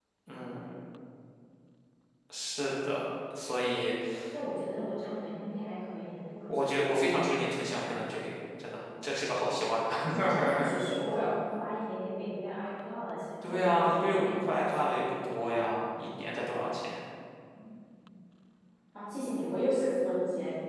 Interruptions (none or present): present